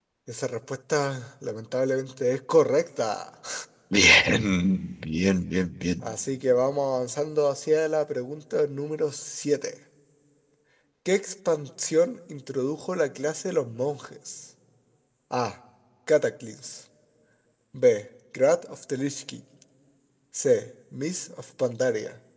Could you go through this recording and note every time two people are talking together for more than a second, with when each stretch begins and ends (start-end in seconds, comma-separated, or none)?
none